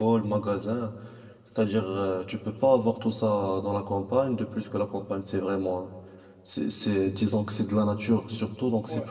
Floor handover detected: Yes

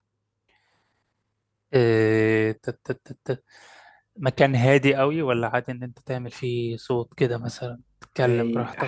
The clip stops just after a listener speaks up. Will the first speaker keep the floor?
No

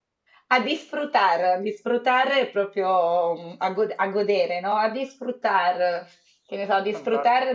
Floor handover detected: No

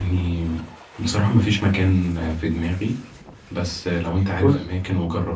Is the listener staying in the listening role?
Yes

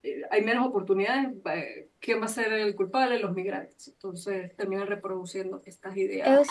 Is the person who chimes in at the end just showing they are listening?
No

